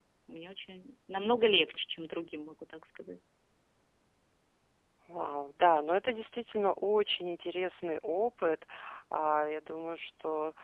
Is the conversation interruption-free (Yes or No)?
Yes